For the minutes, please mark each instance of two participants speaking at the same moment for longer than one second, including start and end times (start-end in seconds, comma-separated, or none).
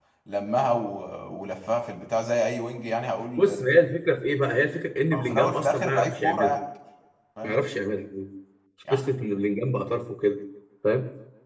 5.1-6.6